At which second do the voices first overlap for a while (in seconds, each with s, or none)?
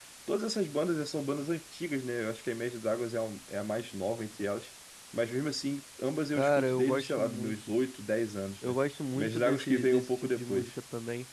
6.3 s